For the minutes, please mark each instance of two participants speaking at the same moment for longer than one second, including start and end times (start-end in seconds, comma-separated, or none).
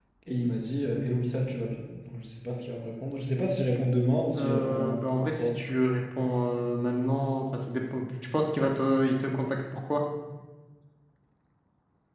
4.3-5.6